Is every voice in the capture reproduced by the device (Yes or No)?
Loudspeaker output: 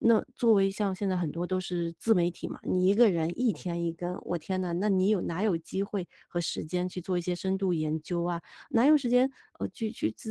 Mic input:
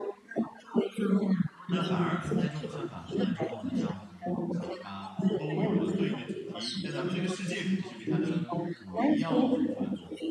No